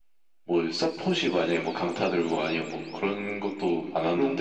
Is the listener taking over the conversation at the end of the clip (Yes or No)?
Yes